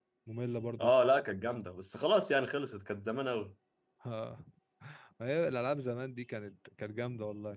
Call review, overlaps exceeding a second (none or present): none